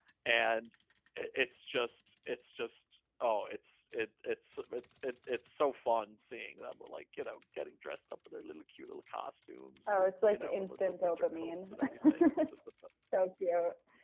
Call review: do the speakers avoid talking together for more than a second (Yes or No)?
No